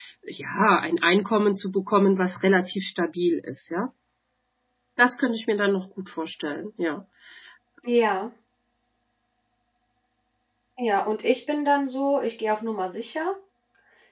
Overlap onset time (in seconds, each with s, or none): none